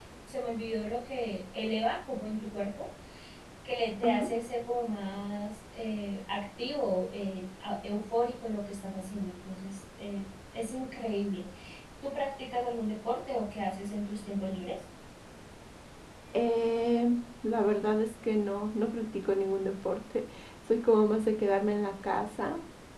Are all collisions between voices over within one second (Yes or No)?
Yes